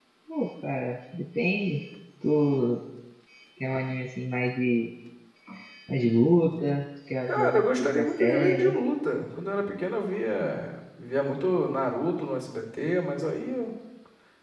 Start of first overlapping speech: 7.3 s

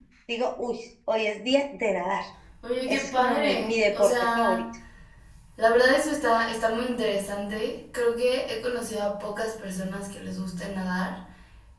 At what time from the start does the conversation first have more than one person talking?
2.9 s

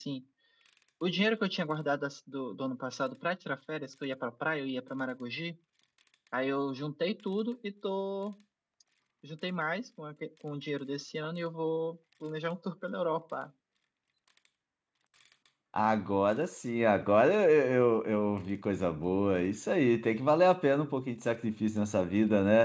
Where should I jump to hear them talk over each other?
none

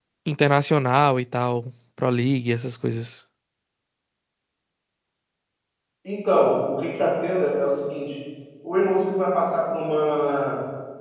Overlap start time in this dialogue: none

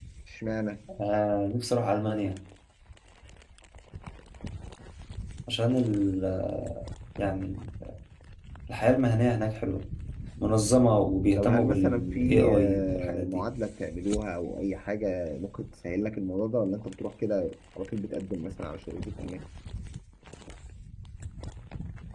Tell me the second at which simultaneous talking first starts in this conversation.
11.3 s

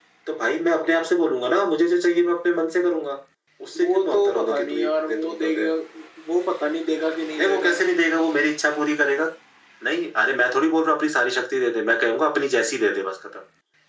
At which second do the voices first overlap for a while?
3.8 s

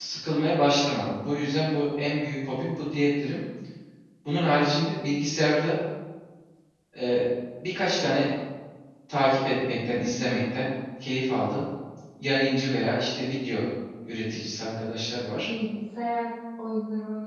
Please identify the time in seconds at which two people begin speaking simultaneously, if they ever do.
none

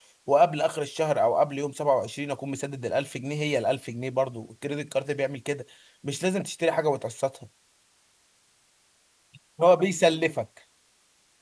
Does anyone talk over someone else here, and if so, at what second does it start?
none

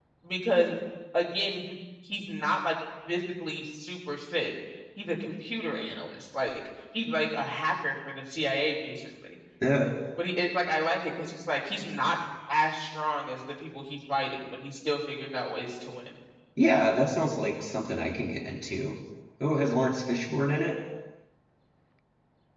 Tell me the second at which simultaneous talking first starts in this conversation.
none

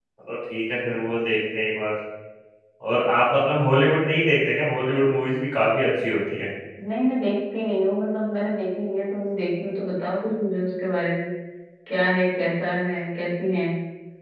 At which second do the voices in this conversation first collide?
none

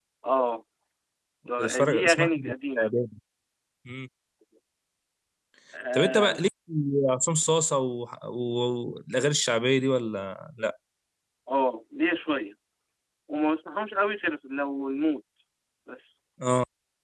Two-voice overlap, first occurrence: 1.6 s

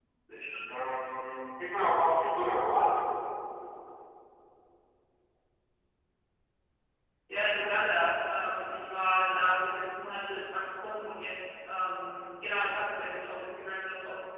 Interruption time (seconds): none

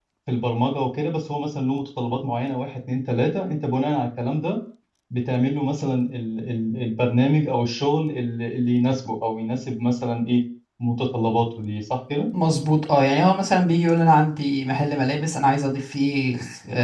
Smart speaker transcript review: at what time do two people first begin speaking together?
none

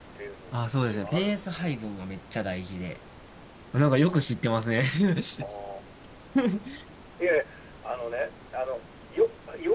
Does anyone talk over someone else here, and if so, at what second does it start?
0.5 s

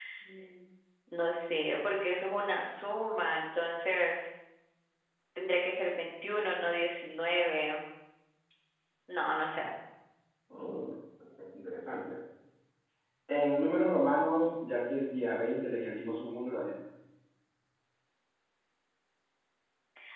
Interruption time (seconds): none

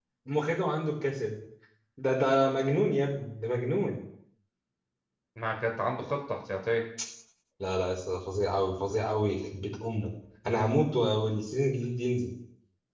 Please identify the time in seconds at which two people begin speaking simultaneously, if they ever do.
none

